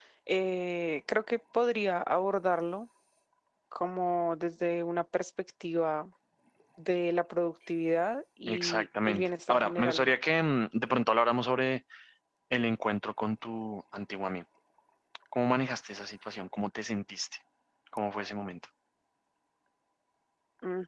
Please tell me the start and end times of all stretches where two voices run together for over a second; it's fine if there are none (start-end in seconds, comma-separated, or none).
8.5-10.2